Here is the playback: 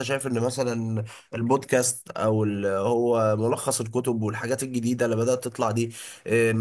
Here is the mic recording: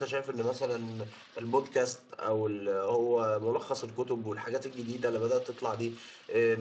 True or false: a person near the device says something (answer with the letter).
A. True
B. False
B